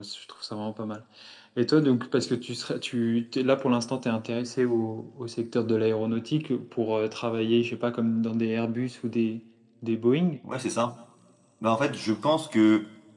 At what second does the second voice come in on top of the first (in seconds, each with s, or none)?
none